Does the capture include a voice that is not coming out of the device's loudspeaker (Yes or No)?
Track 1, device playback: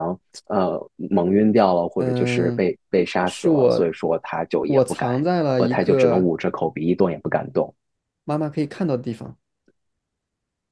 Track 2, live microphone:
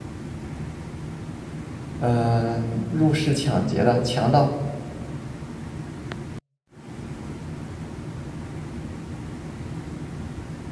Yes